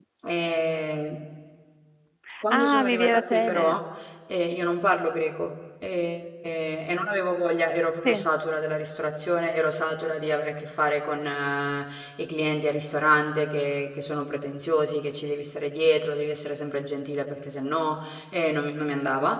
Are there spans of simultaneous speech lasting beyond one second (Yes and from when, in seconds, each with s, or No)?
Yes, from 2.5 s